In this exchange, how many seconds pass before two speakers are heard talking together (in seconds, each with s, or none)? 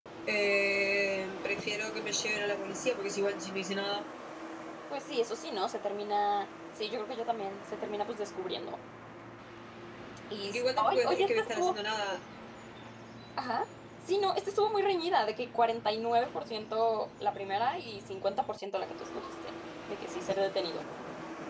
10.4 s